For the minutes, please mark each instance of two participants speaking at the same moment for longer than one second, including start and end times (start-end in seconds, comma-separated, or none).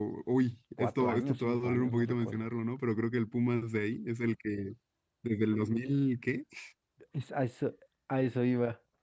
0.8-2.5